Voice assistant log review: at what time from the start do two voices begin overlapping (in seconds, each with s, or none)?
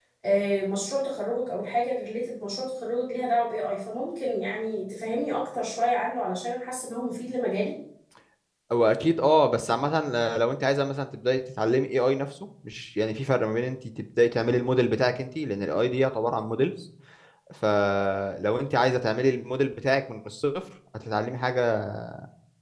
none